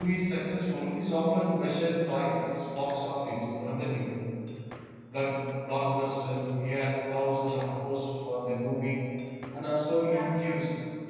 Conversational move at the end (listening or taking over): listening